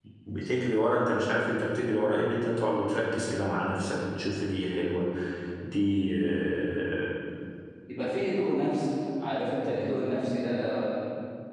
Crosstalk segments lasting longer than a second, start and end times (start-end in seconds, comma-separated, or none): none